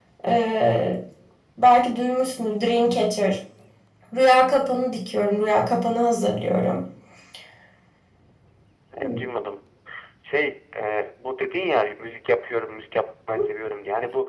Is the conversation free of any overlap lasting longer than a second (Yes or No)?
Yes